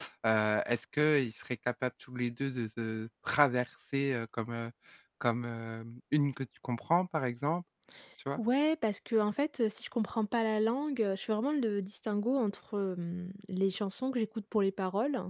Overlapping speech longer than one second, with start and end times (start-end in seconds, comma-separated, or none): none